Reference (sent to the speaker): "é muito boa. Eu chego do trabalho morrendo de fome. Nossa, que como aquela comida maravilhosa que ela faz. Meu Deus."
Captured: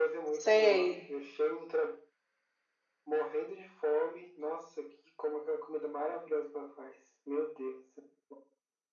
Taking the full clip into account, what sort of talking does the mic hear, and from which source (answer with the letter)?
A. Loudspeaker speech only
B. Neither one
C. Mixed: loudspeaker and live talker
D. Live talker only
C